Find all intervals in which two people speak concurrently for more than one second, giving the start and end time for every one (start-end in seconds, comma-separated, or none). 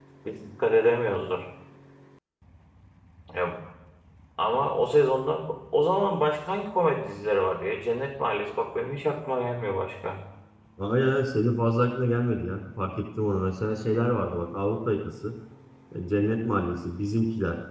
none